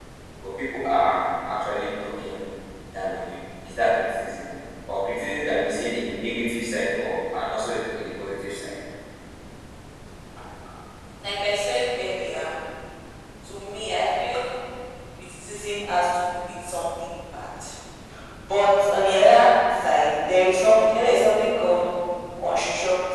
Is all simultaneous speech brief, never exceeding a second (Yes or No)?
Yes